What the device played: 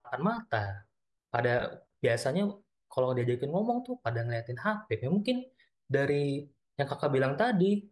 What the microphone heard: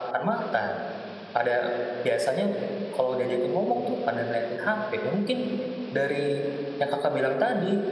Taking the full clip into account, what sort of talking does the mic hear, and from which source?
echo only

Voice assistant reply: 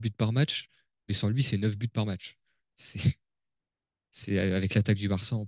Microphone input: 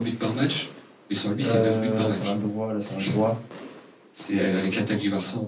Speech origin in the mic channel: both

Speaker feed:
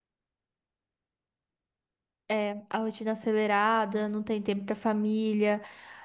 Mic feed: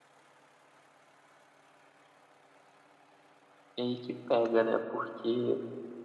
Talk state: user only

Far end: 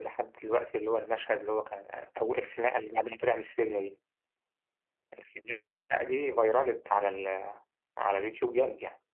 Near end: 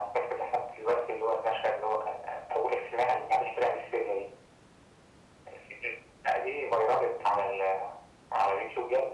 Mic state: echo only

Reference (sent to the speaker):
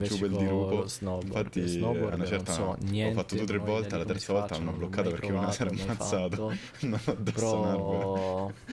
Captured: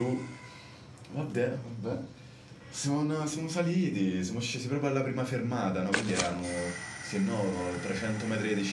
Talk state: user only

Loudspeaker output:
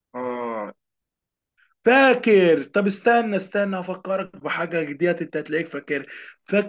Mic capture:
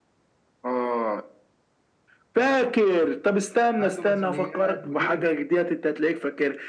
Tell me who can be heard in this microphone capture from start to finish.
both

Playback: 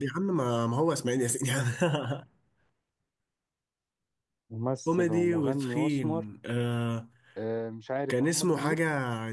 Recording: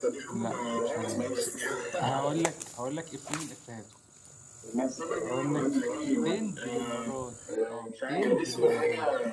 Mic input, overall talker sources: both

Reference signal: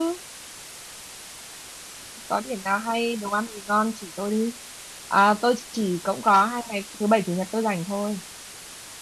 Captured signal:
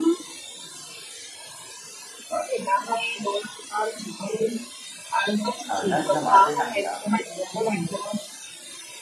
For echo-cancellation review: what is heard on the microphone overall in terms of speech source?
both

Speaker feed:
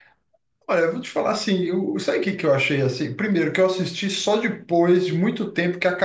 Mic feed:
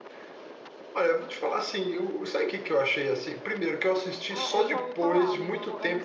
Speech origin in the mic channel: both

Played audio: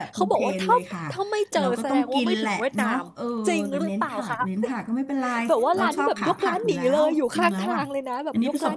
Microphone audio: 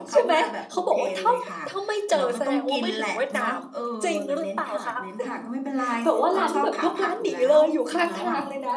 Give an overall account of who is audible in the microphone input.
echo only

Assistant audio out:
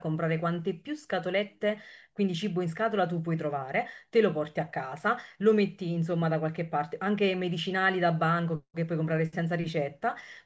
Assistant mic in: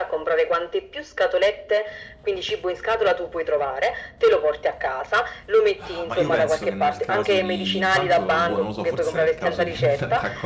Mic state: both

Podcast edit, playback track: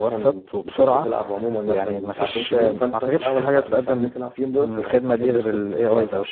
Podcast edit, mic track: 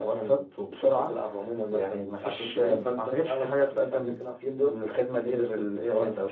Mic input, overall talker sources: echo only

